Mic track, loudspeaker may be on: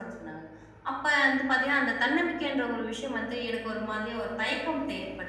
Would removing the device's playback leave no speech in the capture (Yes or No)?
Yes